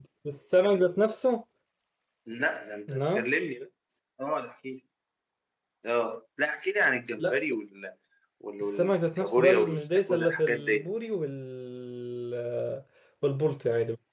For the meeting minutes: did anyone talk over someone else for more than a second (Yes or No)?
Yes